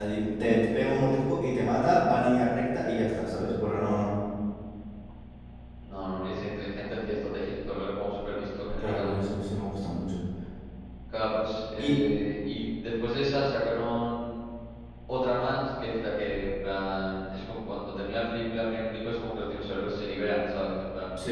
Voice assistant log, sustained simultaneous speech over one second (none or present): none